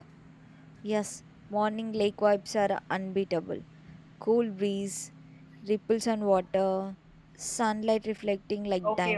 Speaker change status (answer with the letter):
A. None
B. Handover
B